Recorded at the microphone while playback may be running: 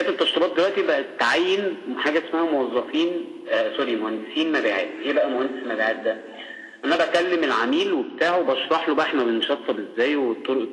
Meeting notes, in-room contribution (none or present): none